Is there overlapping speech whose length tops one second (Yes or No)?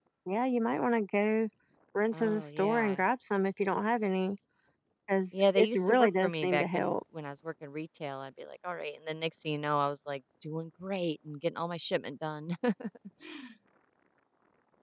Yes